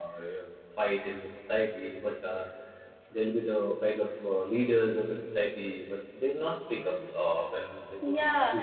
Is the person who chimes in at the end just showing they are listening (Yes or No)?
No